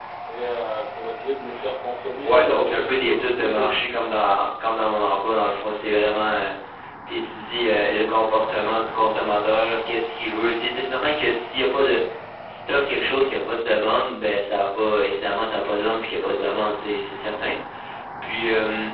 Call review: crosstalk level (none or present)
present